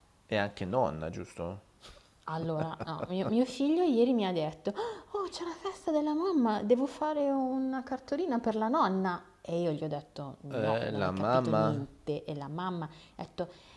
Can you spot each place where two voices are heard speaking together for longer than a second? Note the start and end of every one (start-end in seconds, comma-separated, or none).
10.5-11.8